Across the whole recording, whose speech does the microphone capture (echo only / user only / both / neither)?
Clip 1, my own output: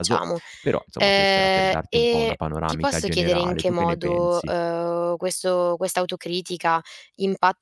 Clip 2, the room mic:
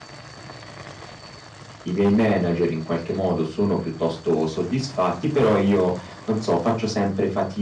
user only